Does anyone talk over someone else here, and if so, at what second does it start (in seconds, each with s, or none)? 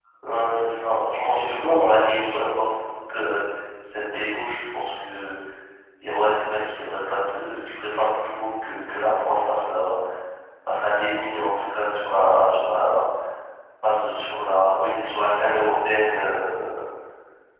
1.1 s